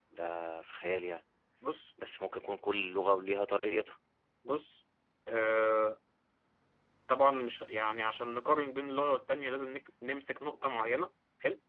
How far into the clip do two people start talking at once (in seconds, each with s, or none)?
none